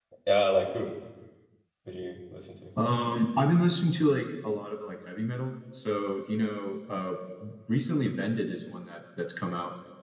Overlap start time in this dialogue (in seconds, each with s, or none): none